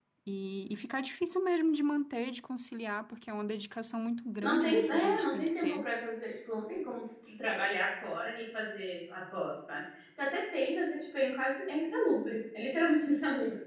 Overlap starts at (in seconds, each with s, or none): 4.4 s